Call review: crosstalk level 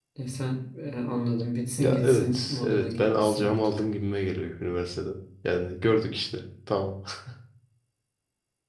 present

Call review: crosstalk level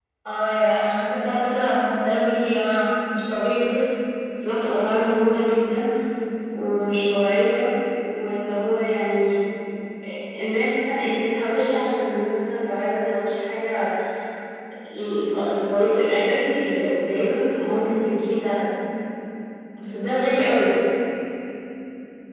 none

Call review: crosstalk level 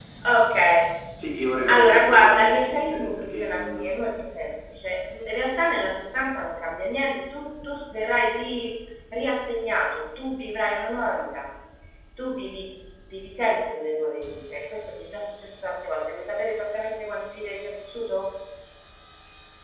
present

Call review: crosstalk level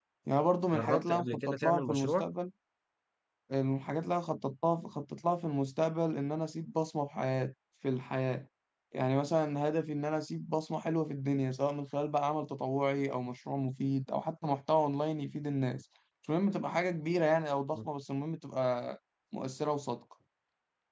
present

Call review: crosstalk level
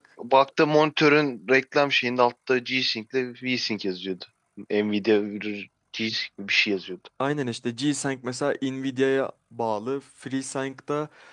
none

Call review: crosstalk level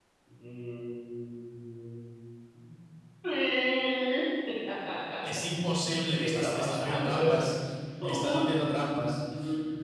present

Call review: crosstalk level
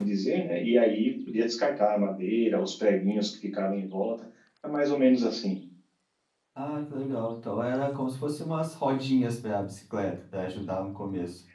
none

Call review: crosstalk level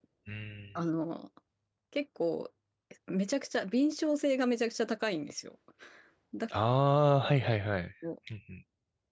none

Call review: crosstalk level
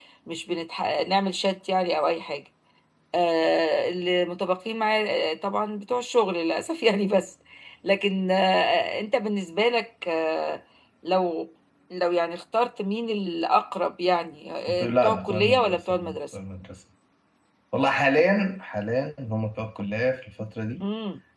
present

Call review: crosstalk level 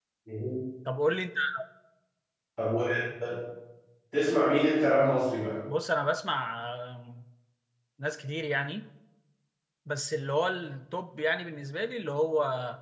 none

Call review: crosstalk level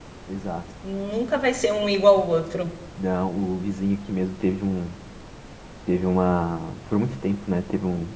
none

